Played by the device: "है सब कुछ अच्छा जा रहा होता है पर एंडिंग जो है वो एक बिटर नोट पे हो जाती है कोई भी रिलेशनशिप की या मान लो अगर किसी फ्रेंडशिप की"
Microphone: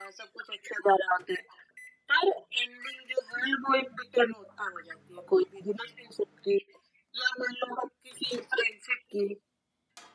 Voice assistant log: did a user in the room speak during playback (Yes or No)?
No